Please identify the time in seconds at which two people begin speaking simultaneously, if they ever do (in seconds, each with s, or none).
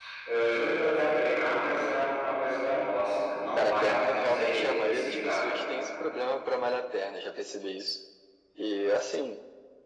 3.6 s